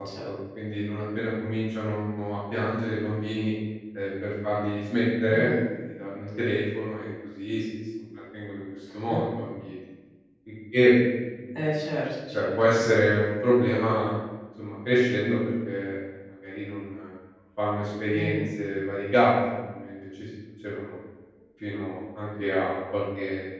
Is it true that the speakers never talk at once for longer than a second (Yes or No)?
Yes